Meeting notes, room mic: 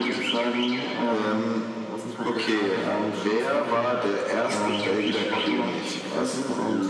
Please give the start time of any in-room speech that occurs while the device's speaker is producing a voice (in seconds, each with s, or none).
none